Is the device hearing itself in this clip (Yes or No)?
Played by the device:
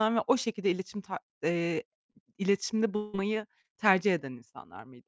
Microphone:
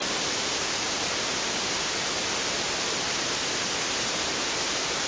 No